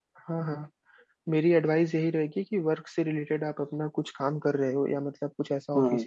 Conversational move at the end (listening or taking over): listening